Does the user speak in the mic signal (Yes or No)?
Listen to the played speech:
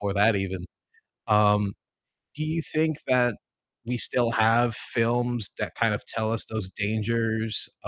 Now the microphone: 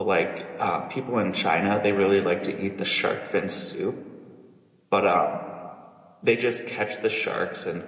Yes